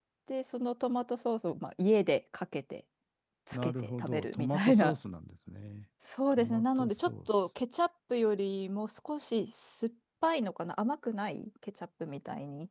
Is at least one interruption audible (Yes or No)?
Yes